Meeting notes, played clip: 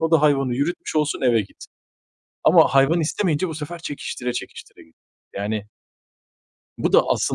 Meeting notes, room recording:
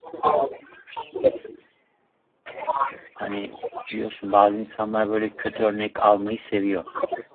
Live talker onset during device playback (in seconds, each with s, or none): 3.1 s